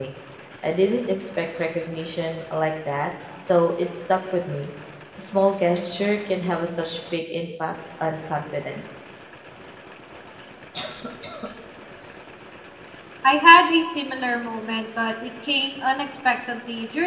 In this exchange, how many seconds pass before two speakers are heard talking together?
none

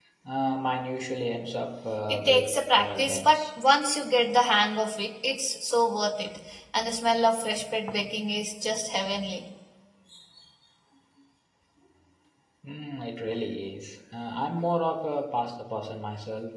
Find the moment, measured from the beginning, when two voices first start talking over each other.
2.1 s

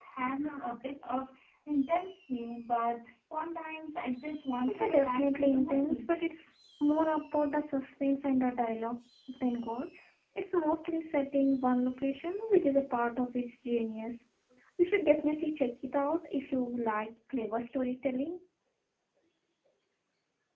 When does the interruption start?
4.6 s

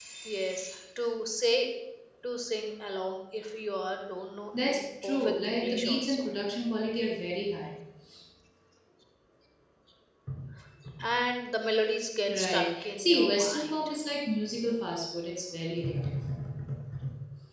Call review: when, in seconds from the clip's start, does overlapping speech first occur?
4.6 s

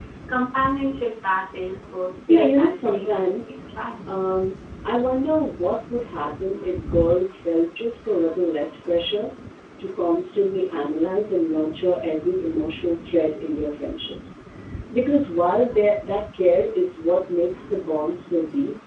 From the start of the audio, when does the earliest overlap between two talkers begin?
2.3 s

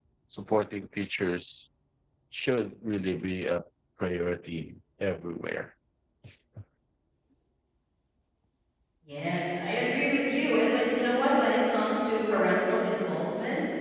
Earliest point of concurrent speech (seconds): none

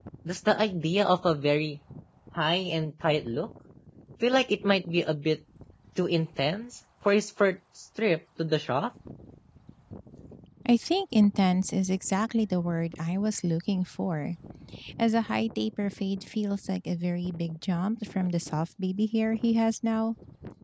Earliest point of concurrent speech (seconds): none

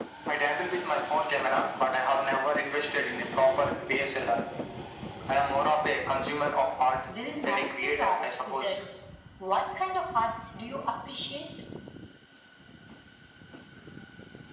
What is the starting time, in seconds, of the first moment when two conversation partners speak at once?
7.4 s

